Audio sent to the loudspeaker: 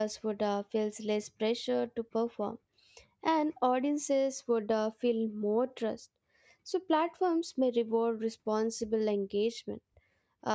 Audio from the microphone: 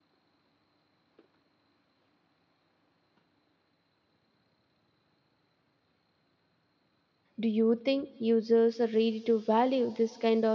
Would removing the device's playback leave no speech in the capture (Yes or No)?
No